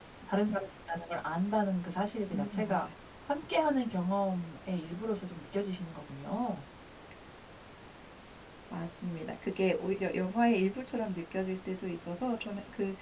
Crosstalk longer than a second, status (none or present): none